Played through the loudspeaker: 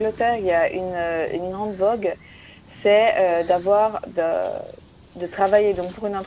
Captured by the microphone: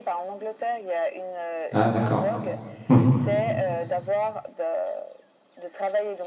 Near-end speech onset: 2 s

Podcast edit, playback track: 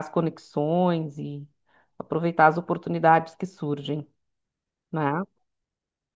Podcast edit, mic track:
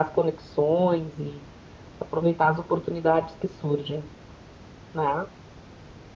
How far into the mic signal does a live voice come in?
none

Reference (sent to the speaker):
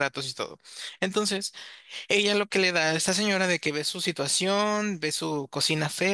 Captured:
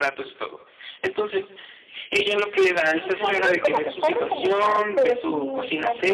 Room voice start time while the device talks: 3 s

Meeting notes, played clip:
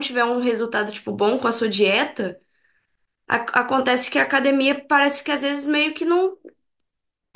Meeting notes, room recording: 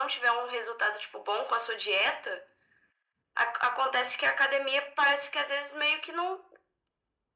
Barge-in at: none

